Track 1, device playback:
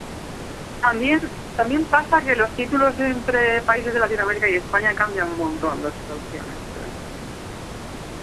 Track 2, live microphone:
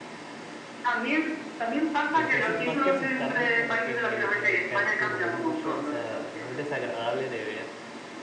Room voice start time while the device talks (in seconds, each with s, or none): 2.1 s